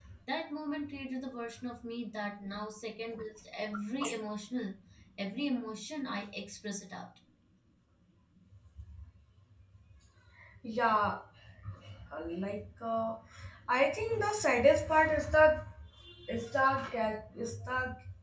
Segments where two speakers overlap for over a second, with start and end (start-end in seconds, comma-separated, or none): none